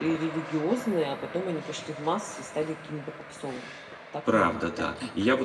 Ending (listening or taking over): taking over